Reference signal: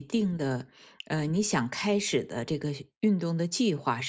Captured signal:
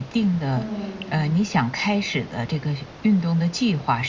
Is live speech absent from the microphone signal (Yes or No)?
No